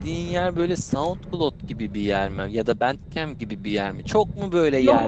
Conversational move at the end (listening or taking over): listening